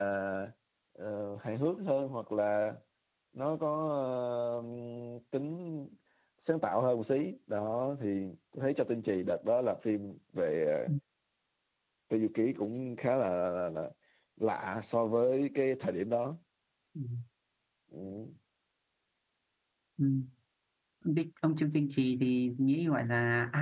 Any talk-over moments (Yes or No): No